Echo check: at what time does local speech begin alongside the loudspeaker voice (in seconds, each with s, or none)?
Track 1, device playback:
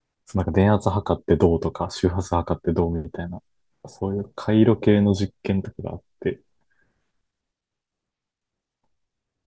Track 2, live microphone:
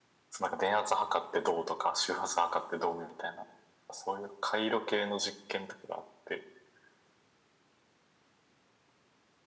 none